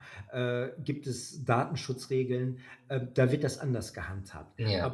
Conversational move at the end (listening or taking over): listening